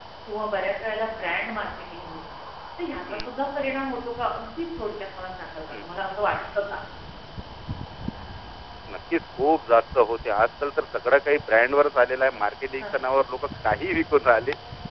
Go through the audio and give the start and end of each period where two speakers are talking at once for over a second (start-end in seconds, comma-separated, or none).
none